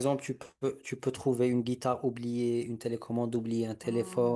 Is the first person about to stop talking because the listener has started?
Yes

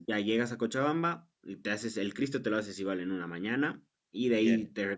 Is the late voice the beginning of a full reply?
No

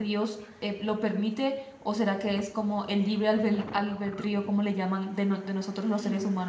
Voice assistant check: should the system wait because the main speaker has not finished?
Yes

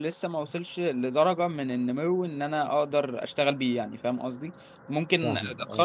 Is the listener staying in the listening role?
Yes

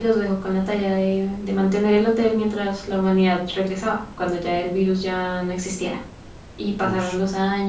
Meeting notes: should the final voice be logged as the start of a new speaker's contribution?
No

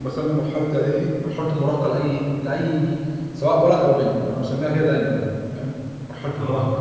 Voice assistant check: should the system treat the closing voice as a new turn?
Yes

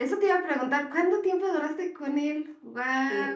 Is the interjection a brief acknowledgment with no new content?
No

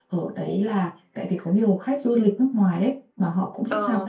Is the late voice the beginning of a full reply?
No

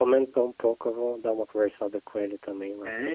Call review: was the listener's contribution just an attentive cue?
No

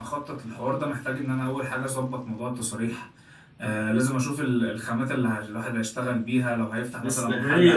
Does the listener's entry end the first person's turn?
Yes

